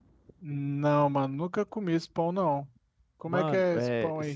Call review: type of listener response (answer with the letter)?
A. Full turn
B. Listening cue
A